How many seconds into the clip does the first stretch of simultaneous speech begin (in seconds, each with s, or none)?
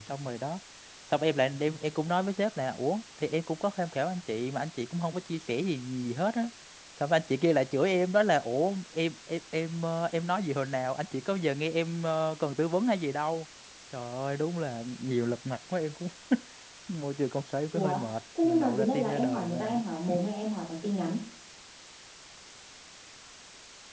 17.7 s